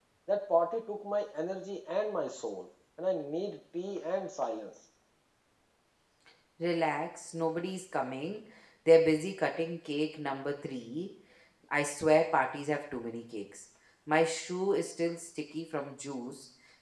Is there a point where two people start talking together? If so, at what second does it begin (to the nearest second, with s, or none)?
none